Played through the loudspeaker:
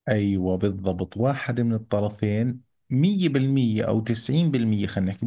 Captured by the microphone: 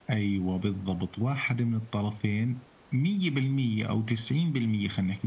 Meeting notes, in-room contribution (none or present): none